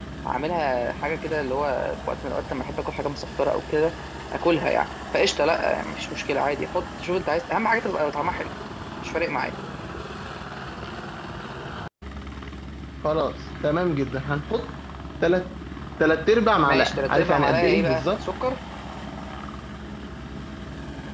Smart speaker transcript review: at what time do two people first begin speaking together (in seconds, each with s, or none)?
16.6 s